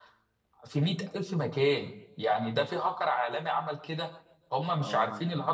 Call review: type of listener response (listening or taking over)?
listening